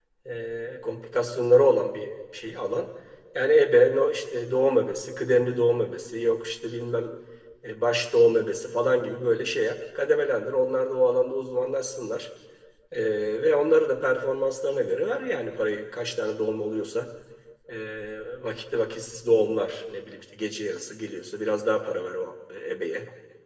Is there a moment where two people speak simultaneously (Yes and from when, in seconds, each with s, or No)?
No